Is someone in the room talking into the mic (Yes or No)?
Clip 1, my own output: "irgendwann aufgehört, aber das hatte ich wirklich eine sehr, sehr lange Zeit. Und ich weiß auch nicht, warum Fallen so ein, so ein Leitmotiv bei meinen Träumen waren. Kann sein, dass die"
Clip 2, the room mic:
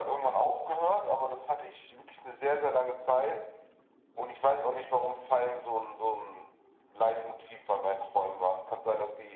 No